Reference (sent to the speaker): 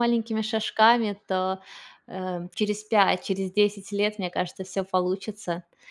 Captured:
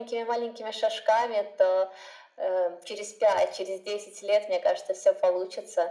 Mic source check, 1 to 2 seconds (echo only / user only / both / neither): echo only